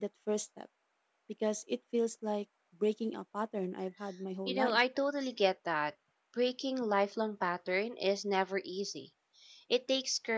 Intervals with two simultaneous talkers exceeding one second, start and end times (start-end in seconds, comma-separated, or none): none